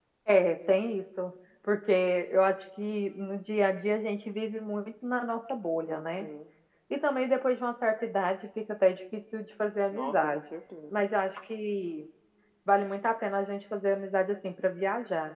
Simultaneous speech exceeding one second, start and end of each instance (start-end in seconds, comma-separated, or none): none